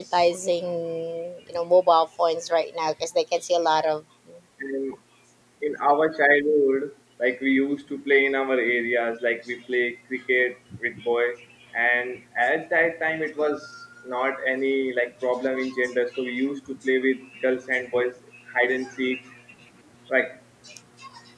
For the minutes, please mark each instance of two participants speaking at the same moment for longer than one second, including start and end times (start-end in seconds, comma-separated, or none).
none